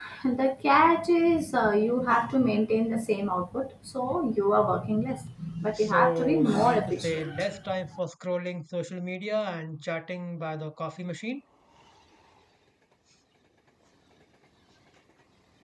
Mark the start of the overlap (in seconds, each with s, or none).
5.8 s